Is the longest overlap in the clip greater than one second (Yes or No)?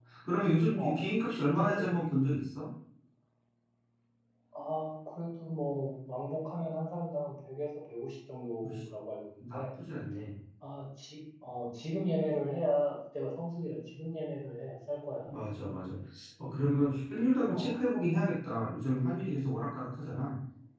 No